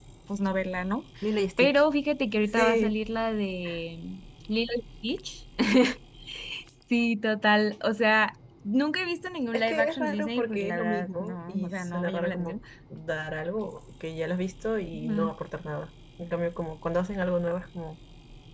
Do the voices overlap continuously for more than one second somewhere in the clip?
Yes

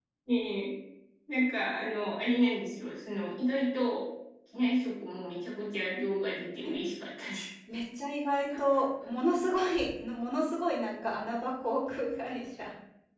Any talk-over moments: No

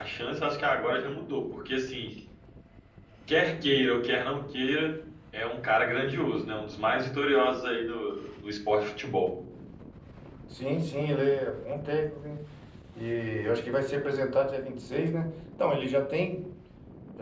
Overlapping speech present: No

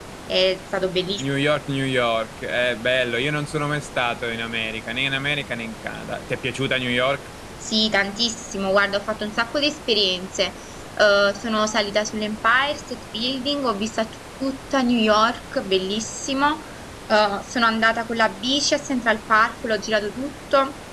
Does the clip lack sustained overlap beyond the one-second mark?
Yes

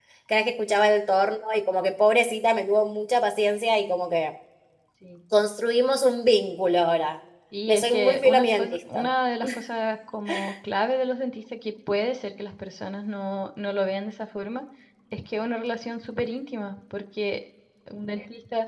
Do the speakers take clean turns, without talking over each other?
No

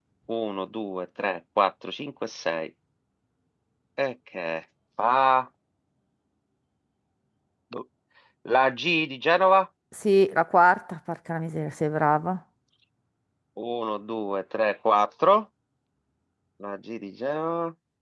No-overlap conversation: Yes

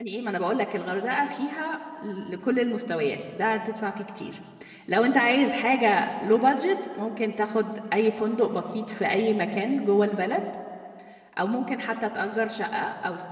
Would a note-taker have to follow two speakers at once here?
No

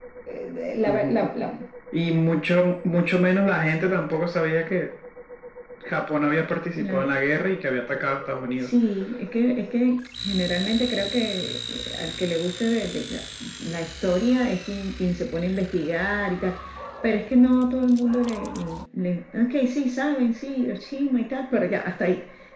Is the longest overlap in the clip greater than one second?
No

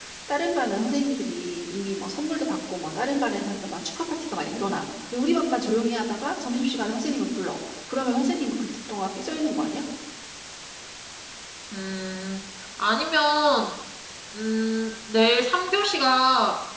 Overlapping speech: No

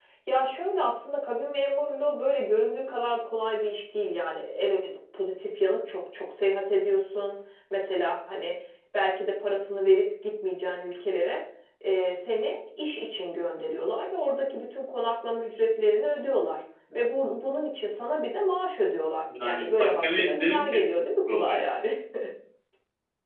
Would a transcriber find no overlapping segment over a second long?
No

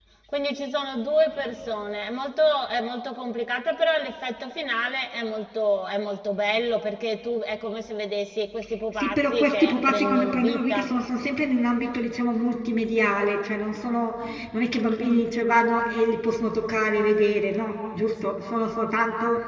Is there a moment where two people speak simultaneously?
Yes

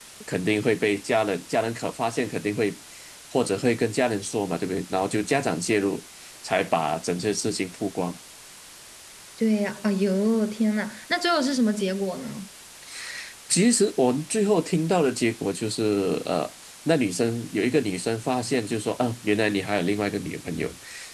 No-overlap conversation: Yes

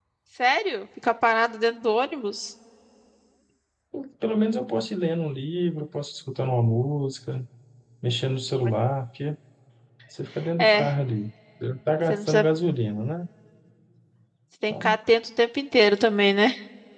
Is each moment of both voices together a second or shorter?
Yes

